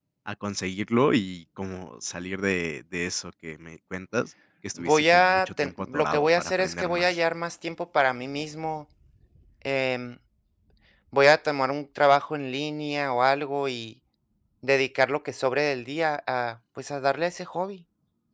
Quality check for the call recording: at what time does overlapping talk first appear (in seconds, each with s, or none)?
4.8 s